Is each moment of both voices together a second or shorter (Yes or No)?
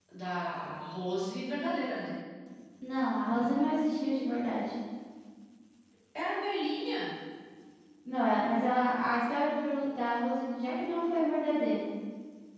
Yes